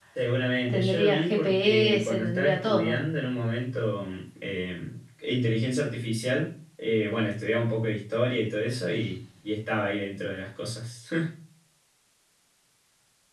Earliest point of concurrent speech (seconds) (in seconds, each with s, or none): 0.7 s